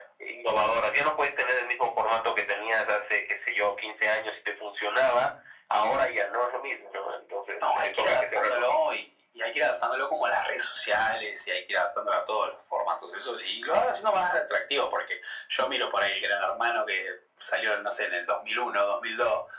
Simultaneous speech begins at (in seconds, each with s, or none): 7.6 s